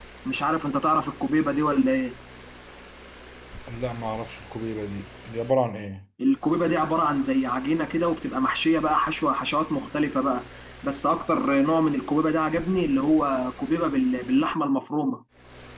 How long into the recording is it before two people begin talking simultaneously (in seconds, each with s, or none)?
none